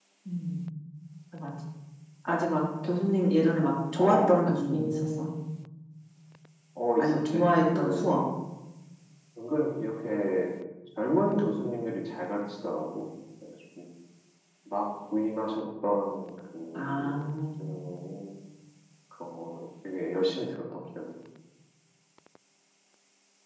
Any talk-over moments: Yes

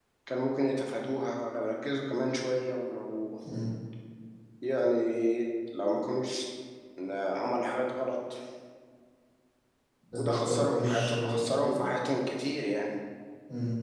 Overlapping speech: Yes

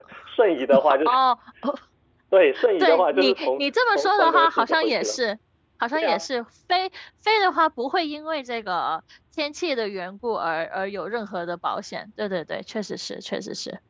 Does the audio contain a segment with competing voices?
Yes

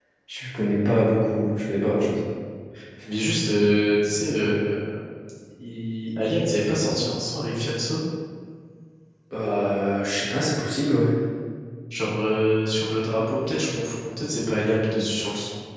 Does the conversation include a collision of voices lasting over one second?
No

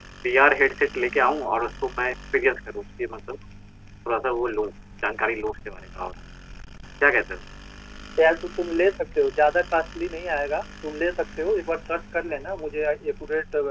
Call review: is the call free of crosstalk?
Yes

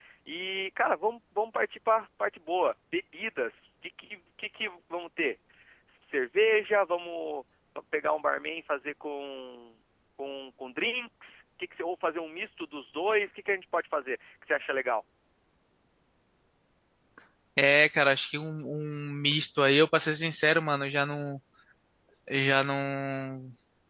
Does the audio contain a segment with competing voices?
No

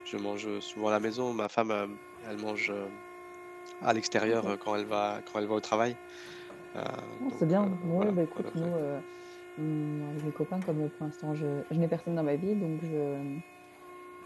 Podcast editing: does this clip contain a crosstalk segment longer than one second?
Yes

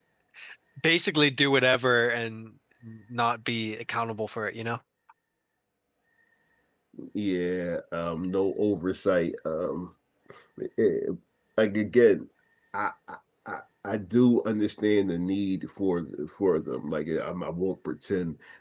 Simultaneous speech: No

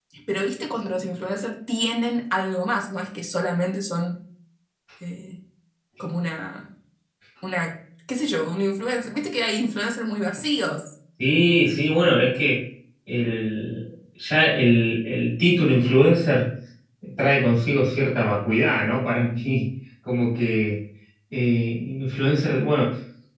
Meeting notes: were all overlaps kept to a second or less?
Yes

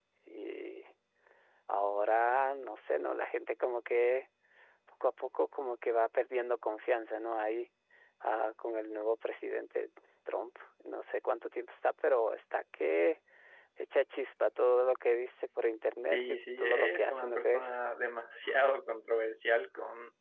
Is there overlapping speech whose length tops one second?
Yes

